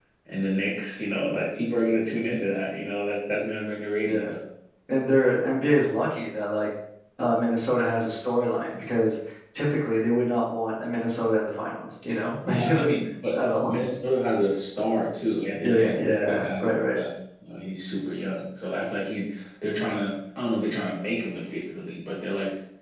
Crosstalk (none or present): present